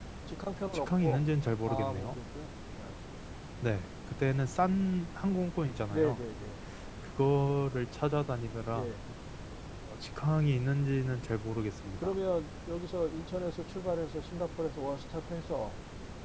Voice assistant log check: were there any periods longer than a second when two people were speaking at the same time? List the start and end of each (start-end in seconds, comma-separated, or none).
none